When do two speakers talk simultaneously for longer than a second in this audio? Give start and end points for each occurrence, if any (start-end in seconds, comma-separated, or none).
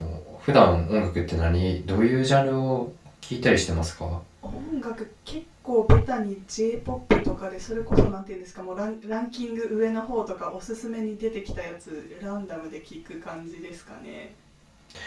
none